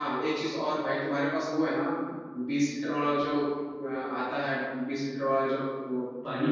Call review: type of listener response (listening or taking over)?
listening